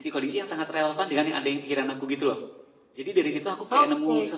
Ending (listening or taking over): listening